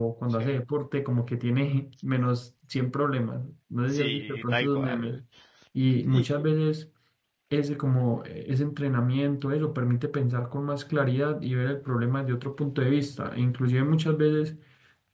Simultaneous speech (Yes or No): Yes